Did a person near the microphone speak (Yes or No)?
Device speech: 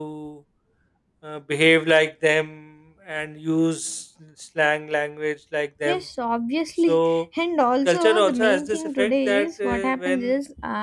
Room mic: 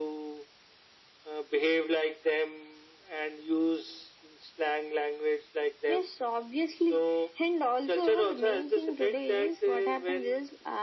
No